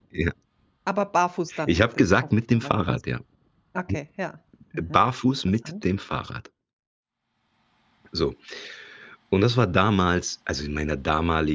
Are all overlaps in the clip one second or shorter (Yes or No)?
No